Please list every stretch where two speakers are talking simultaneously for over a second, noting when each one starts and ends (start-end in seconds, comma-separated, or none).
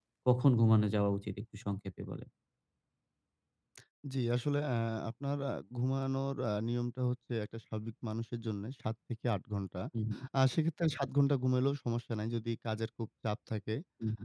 none